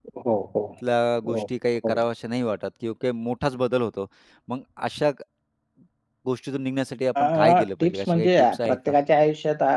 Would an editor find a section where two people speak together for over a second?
Yes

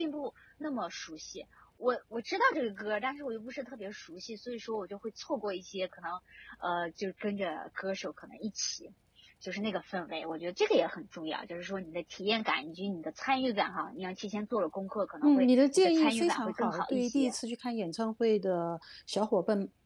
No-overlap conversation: No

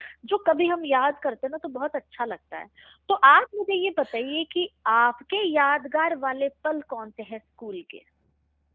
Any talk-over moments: No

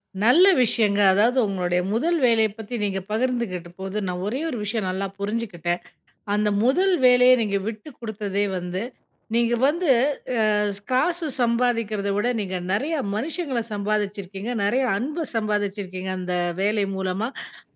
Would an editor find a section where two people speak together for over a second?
No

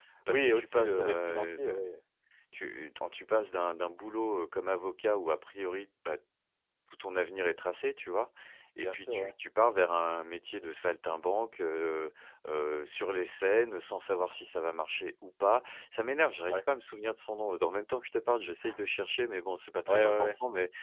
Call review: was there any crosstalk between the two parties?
Yes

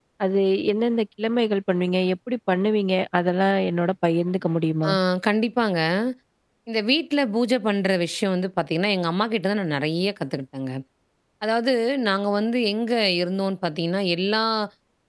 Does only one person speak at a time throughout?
Yes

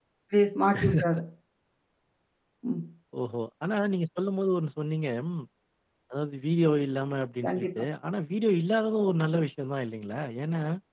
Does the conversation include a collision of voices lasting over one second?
No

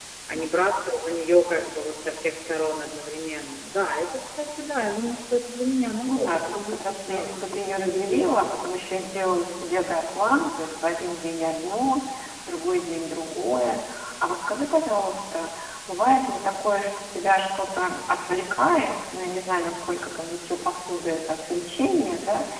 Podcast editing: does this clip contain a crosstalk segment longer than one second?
Yes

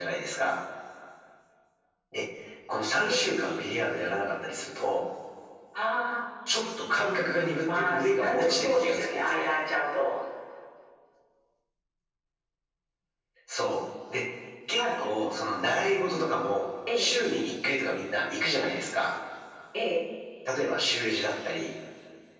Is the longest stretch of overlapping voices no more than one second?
No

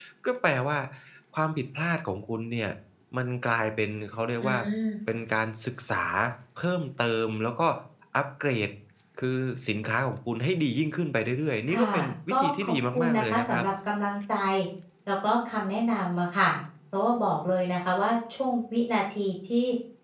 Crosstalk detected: Yes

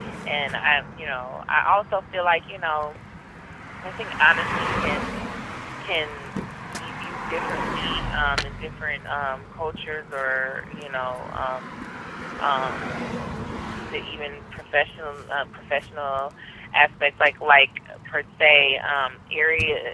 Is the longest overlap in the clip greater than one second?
No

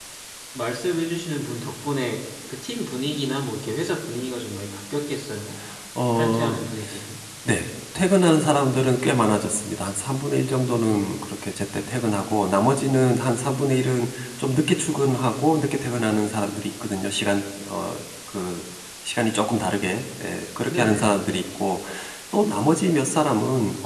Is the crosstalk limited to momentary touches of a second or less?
Yes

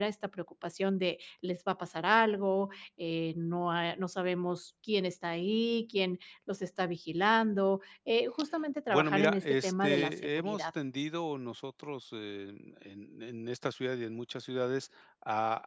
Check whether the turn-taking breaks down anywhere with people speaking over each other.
Yes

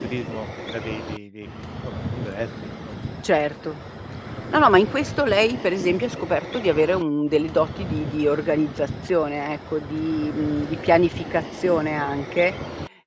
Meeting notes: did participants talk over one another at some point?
No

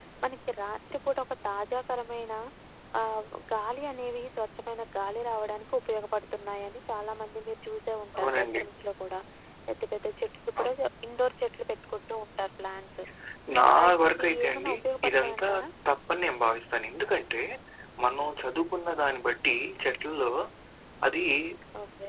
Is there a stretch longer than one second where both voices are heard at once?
Yes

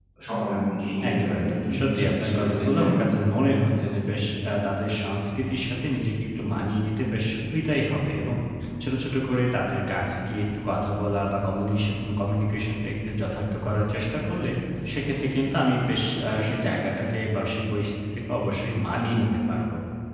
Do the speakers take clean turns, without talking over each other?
No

